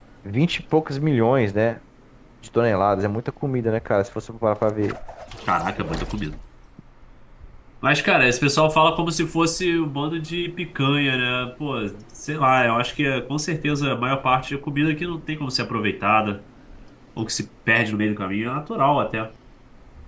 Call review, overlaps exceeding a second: none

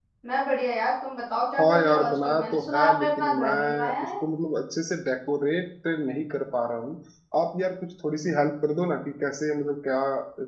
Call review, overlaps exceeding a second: present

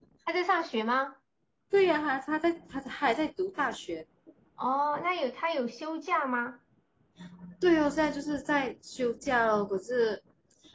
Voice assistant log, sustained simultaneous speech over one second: none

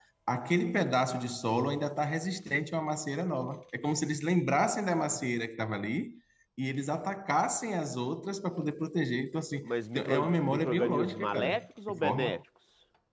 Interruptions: present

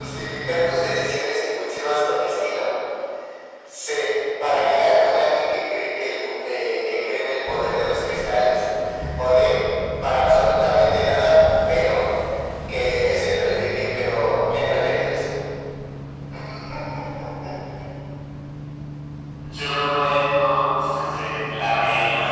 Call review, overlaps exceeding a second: none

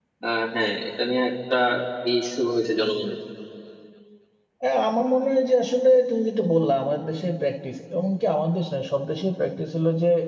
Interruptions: none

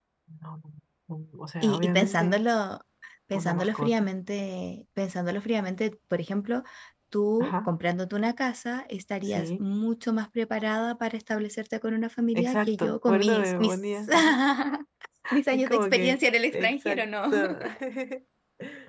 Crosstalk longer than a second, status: present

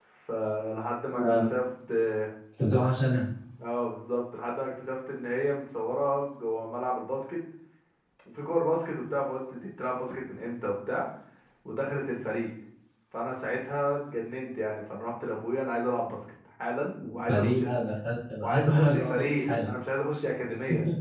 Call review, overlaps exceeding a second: present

